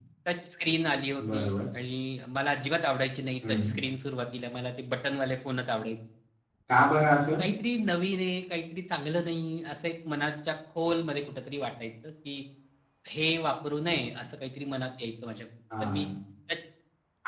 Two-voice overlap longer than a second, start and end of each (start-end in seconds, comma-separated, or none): none